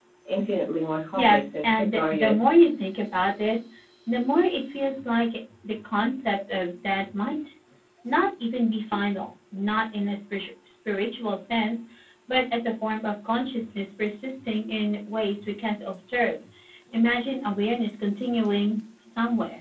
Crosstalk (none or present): present